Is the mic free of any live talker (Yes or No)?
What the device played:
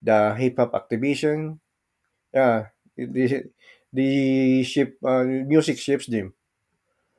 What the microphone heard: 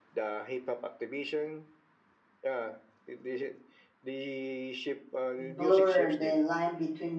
No